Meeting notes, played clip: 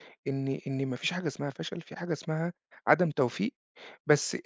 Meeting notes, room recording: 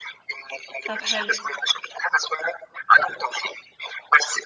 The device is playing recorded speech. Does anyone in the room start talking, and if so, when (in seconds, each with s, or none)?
0.9 s